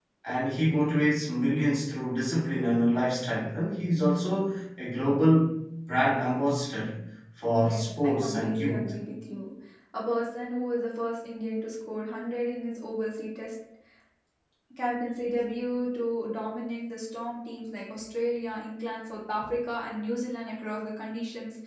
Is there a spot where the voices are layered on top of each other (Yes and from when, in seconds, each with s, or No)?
Yes, from 7.6 s